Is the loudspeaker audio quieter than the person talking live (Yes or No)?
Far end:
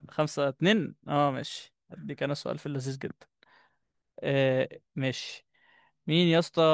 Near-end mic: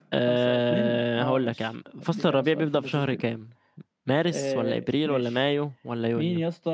Yes